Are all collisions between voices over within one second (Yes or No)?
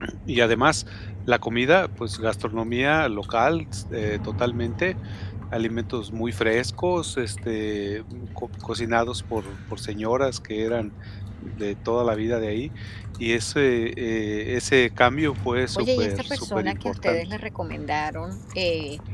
No